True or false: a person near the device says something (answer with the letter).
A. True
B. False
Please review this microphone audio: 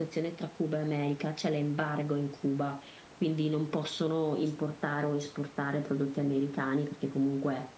B